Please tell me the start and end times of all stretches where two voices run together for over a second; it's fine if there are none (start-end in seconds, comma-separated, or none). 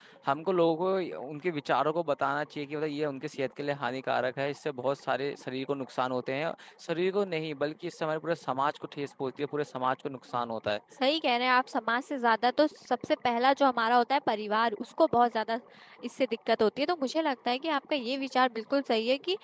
none